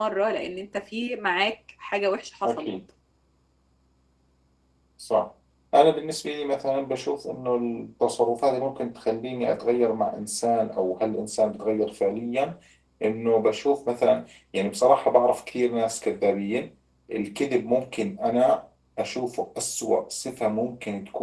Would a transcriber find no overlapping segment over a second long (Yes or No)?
Yes